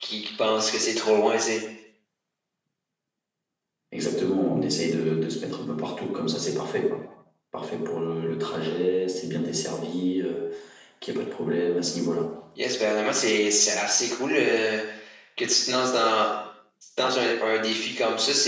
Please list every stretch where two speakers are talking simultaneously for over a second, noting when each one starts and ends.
none

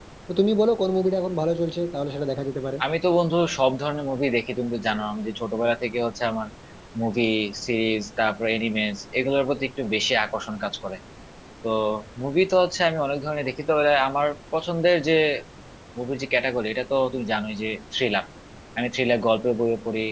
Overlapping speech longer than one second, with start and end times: none

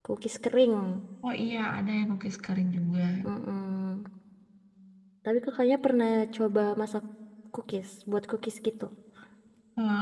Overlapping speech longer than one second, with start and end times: none

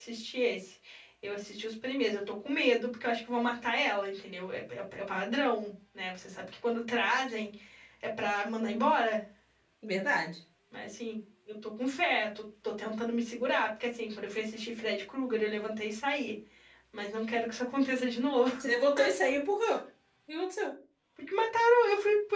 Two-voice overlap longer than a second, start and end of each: none

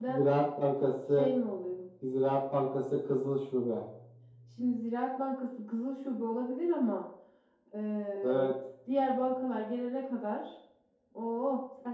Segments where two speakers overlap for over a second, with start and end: none

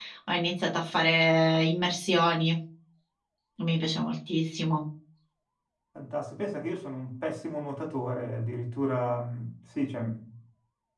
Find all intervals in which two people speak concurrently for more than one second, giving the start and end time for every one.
none

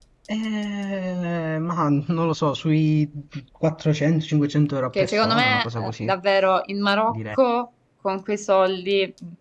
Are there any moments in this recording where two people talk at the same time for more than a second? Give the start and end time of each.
4.9-6.1

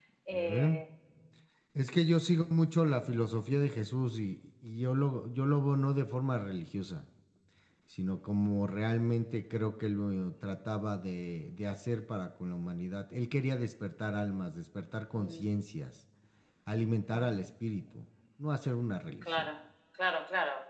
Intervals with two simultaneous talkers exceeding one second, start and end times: none

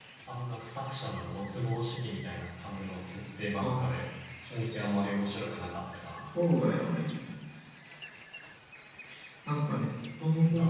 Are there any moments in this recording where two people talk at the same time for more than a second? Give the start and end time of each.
none

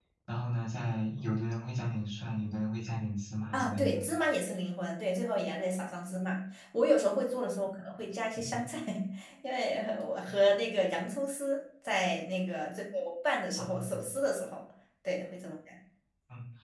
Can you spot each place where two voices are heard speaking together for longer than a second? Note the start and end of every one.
none

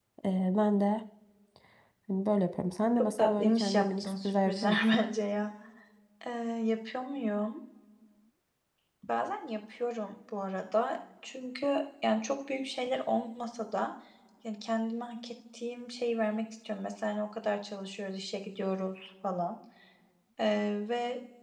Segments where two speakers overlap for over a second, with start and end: 3.0-4.8

